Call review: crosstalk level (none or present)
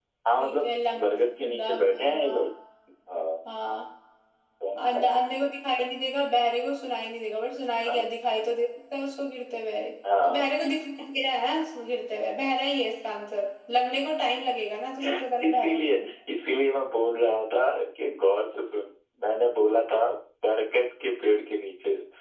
present